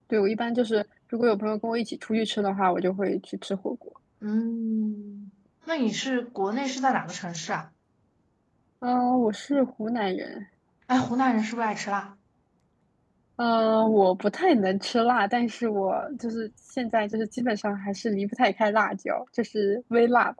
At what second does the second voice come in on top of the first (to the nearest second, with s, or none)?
none